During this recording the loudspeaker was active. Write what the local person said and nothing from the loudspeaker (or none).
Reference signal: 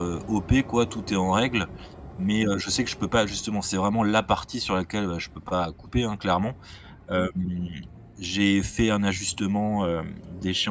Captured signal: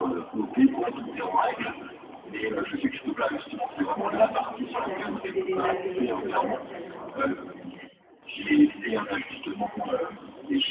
Ouais et Et tu as vu du côté des APL, heu, est-ce que tu y as le droit?